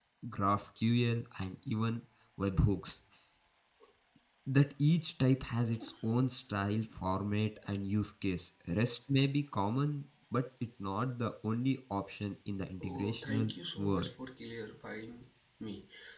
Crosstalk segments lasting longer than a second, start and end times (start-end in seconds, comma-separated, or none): 12.8-14.1